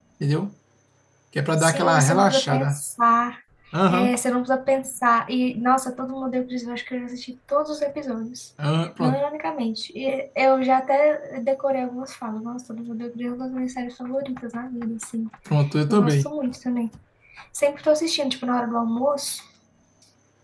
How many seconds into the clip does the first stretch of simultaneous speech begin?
1.6 s

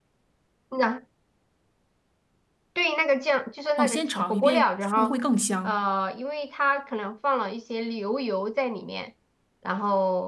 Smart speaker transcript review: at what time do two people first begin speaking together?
3.8 s

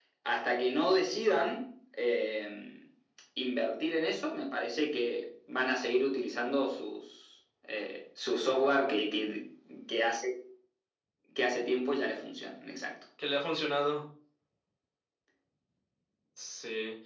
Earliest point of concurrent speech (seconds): none

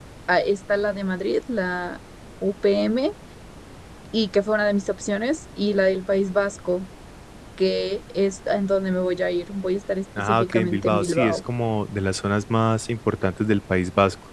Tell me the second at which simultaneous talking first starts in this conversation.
10.2 s

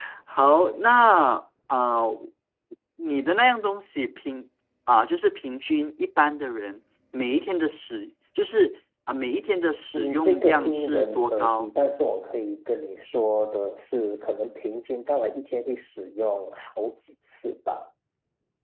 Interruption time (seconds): 9.9 s

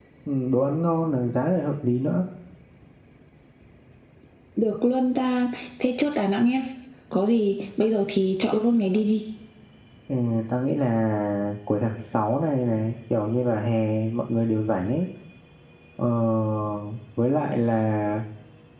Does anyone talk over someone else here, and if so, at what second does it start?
none

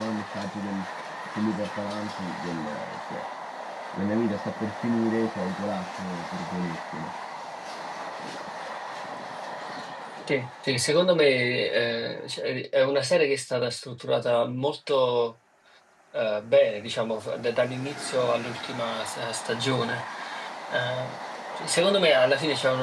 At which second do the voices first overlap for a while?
none

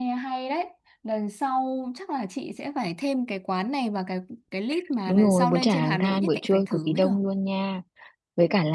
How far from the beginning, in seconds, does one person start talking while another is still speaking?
5.1 s

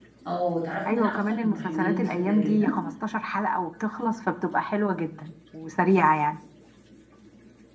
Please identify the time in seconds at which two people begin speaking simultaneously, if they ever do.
0.9 s

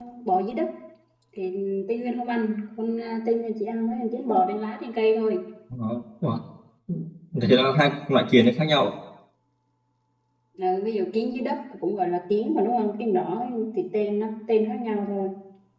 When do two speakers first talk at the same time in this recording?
none

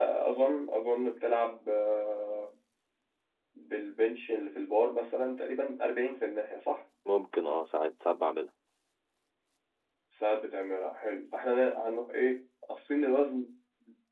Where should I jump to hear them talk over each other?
none

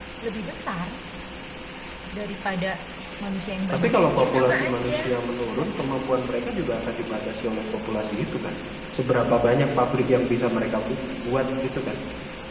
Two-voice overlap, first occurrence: 3.7 s

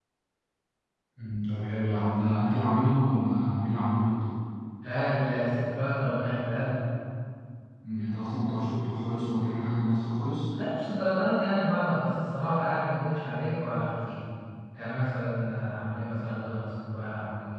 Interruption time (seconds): none

